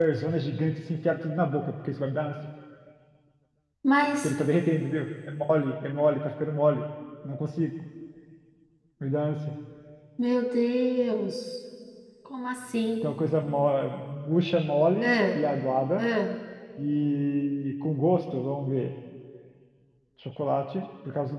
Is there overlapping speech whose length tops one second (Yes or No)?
No